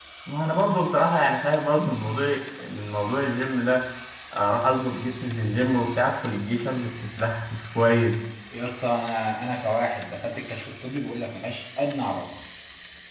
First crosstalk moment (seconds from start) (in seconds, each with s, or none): none